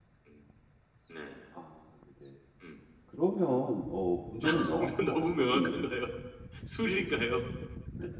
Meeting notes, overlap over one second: present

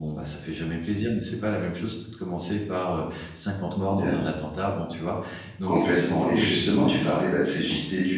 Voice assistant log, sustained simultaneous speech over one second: present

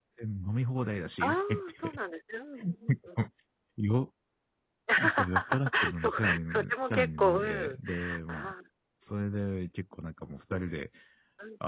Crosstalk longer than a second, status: present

